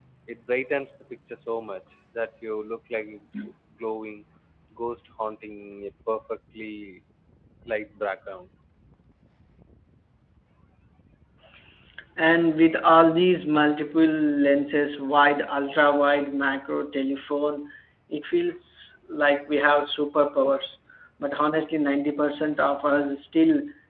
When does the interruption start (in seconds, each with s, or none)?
none